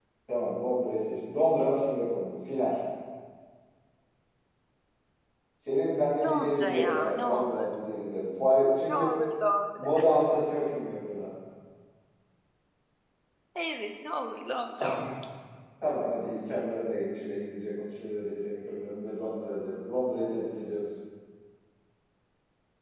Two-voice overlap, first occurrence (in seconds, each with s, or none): 6.2 s